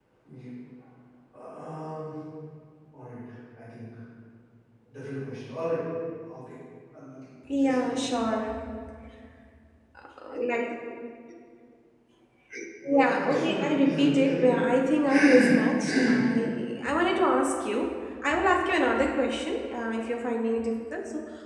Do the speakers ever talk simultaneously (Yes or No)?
Yes